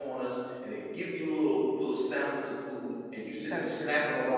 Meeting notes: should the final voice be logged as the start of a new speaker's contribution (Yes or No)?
No